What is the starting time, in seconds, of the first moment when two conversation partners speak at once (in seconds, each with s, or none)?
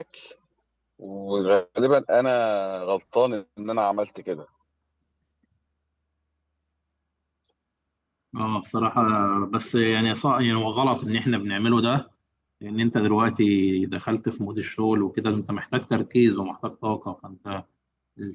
none